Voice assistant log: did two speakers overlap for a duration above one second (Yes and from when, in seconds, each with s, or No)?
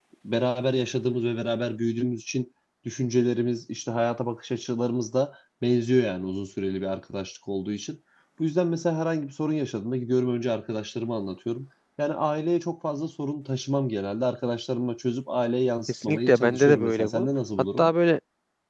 Yes, from 15.9 s